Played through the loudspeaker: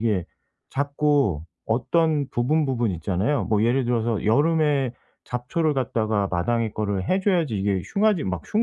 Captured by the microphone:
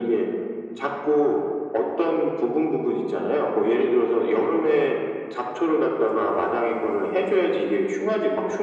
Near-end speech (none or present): none